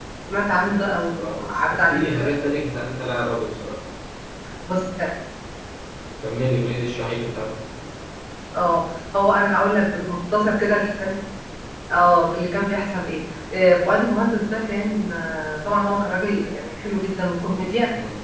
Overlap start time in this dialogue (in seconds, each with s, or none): 0.7 s